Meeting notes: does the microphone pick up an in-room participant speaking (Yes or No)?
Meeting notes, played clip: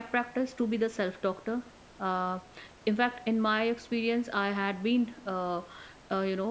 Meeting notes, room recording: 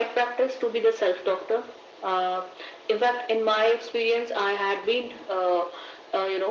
No